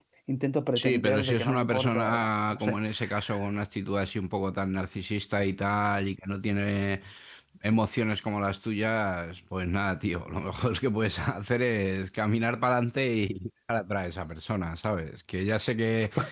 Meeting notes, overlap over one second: present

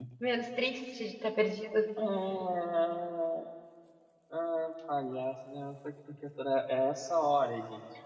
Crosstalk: none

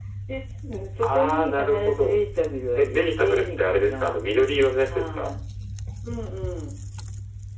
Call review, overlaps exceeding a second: present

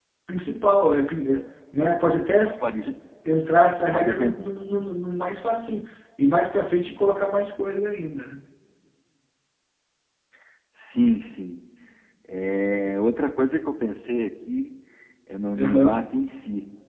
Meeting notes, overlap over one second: none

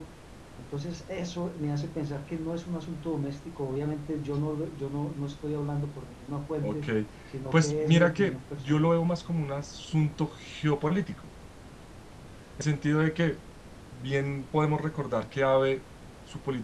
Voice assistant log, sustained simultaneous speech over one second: present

